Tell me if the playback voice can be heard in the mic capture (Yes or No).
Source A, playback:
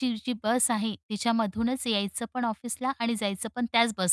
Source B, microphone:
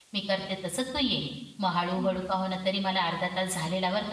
No